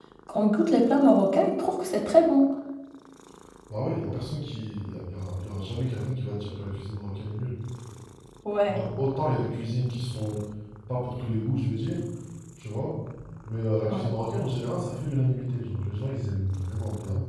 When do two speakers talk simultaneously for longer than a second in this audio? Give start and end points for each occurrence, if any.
none

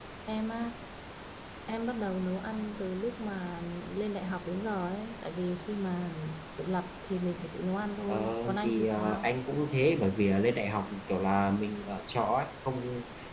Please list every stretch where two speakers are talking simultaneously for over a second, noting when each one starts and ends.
8.1-9.3

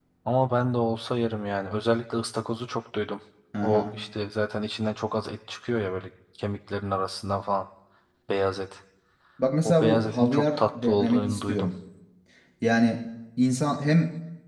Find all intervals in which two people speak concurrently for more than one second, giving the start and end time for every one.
9.7-11.7

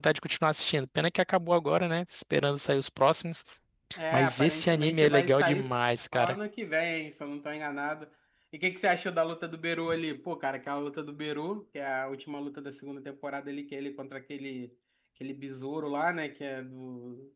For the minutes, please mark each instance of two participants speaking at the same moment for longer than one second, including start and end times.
4.1-6.3

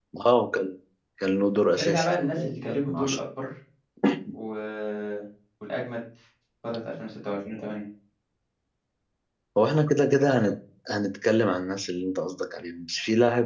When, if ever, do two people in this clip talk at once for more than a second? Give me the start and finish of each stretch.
1.7-3.2

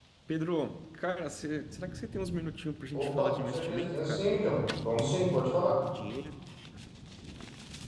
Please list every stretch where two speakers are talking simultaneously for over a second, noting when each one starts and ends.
2.9-4.3

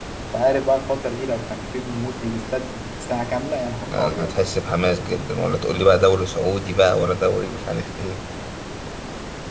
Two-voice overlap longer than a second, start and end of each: none

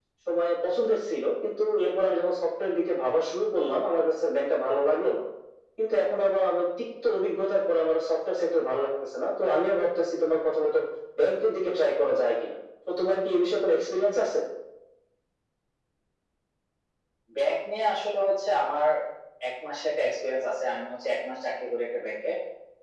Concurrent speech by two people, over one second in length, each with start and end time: none

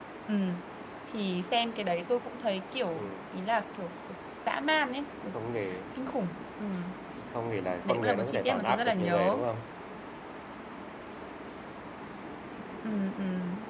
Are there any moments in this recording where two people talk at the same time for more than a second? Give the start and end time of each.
7.9-9.3

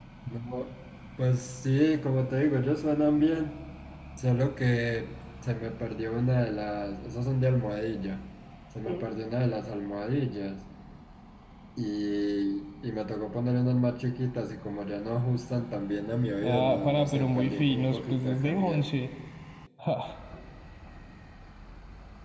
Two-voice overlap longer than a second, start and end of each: 16.4-18.9

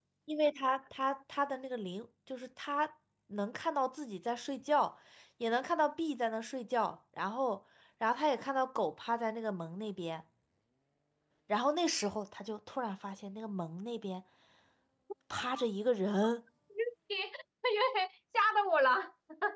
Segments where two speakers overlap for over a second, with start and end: none

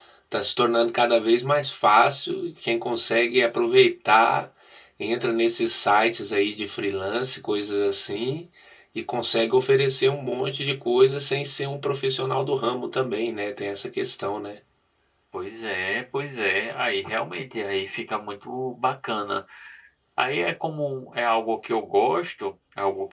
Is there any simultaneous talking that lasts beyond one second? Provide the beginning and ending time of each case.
none

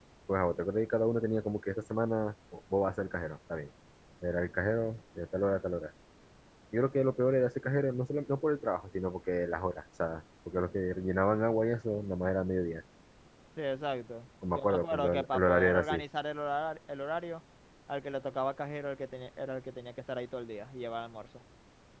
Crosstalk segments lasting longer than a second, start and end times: 14.5-16.0

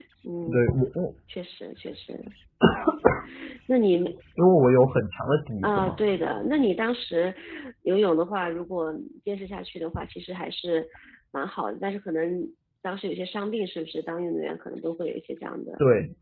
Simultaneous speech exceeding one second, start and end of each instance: none

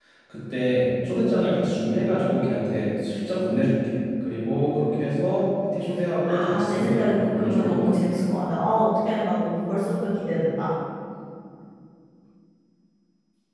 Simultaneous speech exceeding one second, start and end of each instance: 6.2-8.1

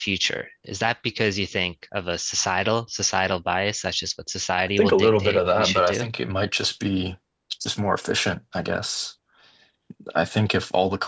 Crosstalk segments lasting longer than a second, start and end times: 4.8-6.1

